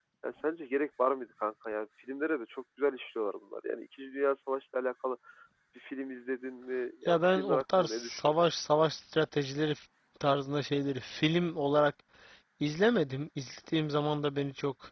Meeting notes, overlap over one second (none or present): present